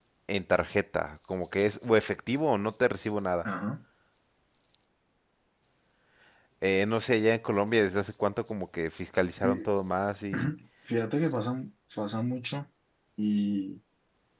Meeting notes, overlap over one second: none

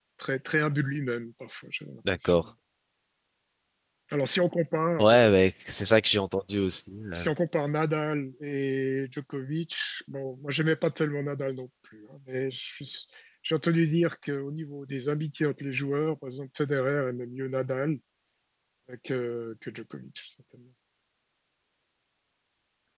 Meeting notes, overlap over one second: none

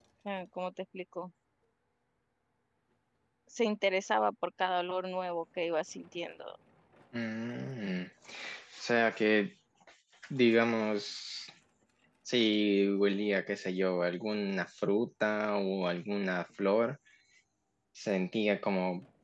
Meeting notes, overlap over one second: none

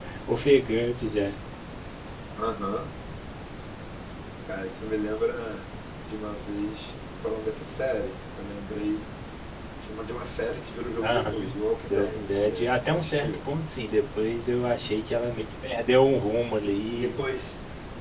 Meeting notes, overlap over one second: present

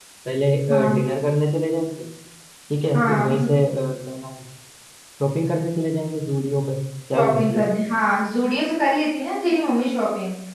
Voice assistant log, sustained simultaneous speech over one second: none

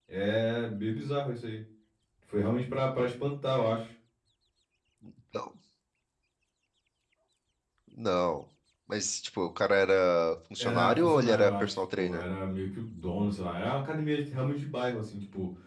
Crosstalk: present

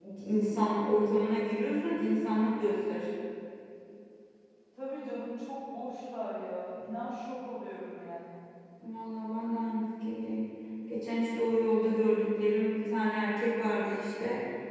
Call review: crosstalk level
none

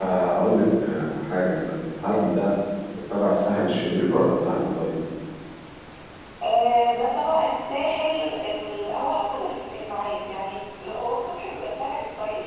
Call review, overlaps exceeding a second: none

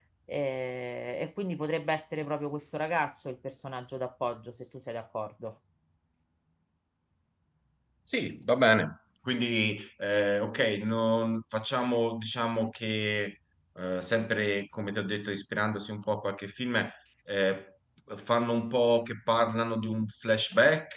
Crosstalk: none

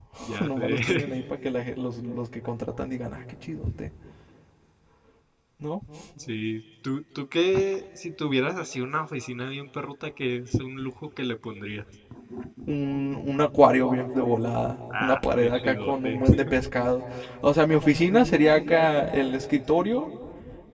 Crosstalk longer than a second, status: present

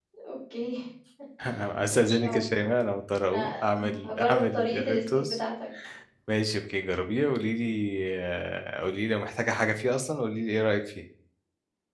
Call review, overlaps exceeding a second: present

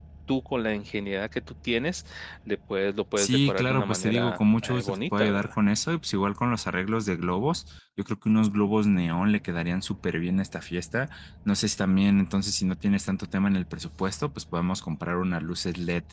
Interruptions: present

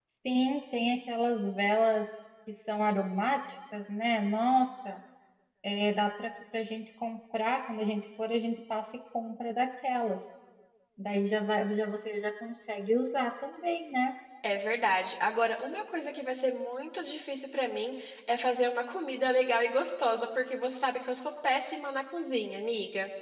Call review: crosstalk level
none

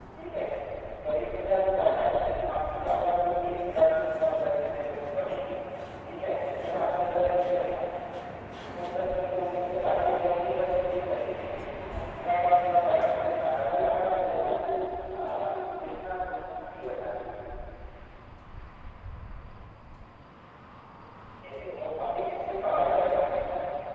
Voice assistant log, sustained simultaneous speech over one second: present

